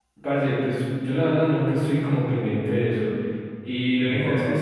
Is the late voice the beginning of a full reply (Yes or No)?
No